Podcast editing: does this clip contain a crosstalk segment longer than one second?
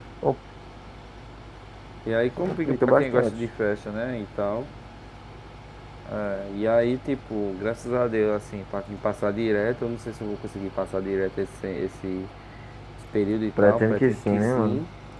Yes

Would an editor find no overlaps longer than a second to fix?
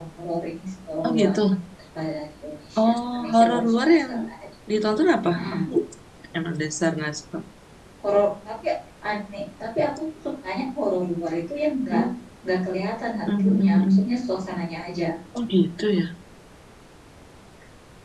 No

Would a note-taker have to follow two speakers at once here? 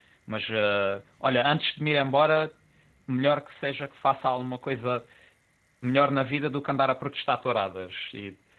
No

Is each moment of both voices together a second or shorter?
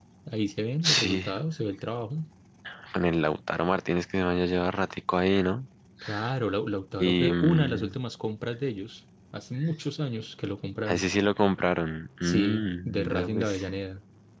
No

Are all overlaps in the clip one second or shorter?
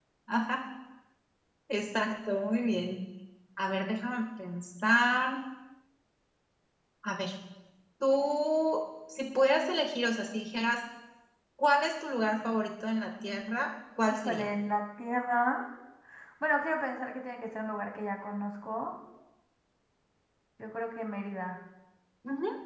Yes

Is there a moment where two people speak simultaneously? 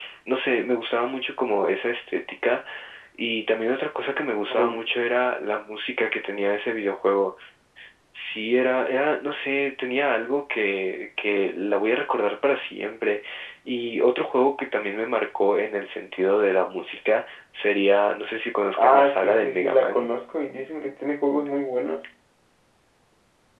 Yes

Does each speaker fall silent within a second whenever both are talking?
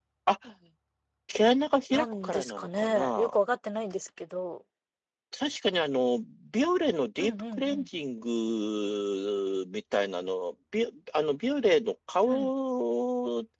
No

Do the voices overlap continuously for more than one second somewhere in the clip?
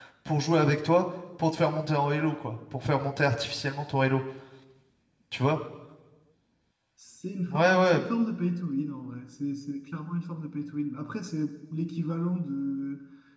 No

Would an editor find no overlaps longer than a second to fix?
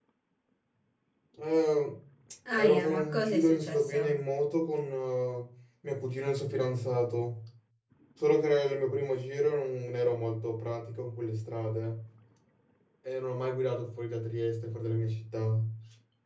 No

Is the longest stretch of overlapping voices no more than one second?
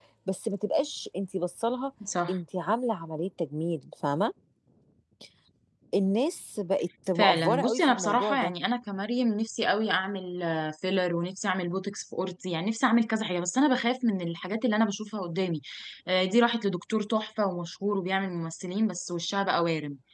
No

